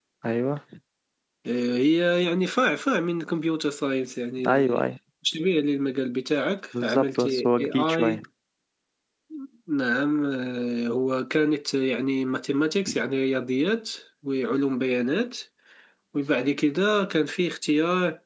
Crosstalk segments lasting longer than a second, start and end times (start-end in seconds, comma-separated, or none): 6.8-8.2